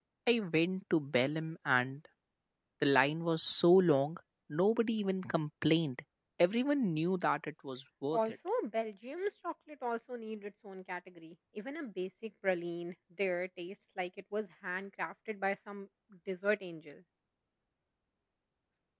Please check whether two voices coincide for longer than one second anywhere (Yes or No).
No